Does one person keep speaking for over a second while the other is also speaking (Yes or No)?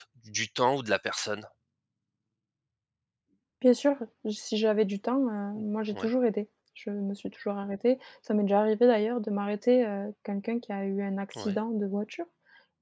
No